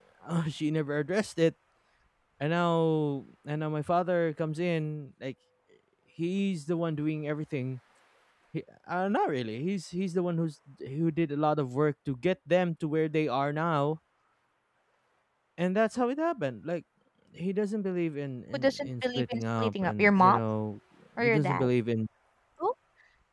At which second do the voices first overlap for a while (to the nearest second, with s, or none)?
19 s